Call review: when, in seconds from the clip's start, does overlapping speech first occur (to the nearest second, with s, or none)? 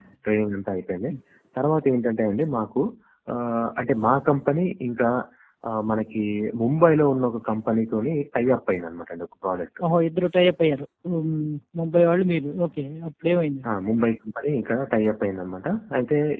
none